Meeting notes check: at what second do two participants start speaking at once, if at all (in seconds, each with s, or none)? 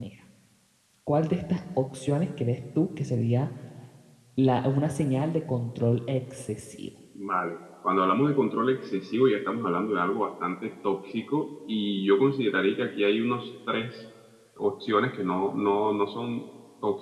none